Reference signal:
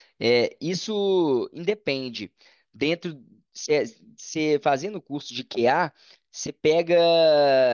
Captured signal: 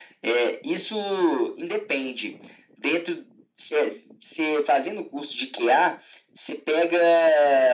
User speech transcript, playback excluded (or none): none